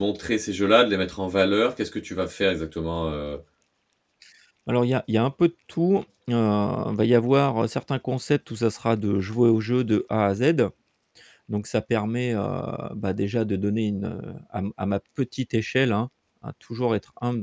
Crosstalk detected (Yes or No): No